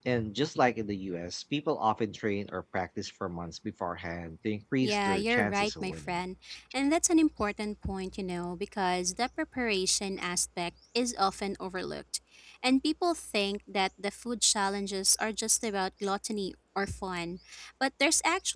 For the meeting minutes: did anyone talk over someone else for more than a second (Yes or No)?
Yes